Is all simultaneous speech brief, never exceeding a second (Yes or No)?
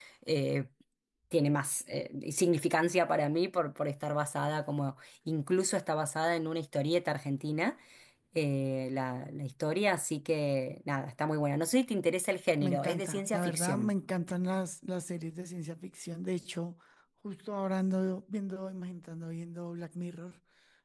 No